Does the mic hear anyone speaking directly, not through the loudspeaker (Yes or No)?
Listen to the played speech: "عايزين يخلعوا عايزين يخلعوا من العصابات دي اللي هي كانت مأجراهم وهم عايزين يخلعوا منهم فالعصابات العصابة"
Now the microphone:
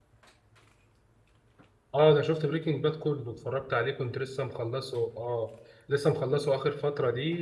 Yes